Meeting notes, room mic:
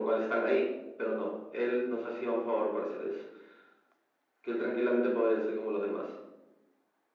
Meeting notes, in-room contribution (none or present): none